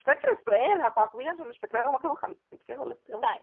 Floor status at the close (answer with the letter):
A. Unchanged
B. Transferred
B